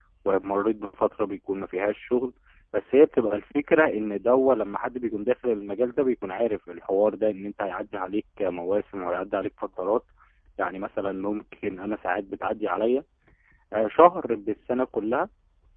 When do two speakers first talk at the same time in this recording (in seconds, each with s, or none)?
none